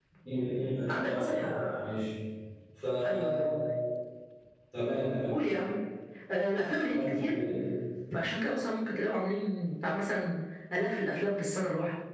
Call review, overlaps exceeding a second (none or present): none